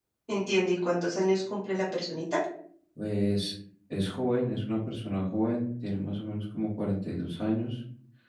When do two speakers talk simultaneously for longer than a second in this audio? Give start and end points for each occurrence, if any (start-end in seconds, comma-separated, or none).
none